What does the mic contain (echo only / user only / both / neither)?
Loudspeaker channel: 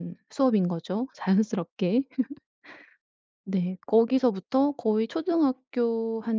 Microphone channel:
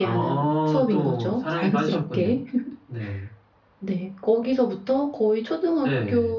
both